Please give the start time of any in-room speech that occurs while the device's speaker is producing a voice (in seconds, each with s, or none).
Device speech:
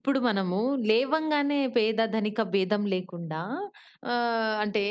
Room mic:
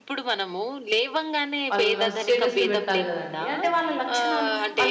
1.7 s